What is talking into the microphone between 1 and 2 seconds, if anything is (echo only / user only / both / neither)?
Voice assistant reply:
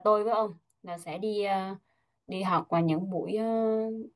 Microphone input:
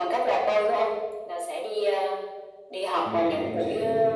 echo only